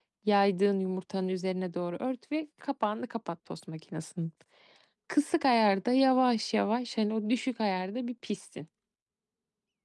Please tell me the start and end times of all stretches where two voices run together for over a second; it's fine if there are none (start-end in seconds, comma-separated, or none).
none